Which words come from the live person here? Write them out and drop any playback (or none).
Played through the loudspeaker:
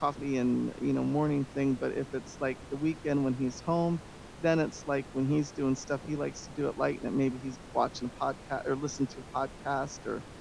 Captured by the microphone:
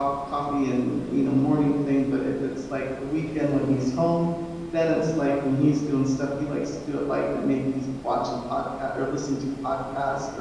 none